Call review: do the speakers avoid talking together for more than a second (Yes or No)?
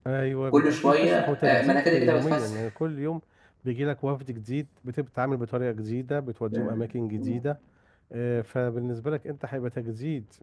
No